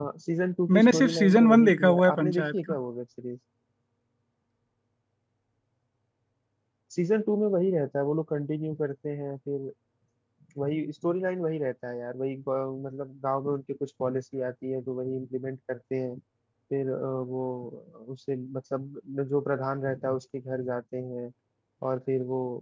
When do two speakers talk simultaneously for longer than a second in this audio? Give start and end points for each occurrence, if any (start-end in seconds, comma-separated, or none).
0.8-2.8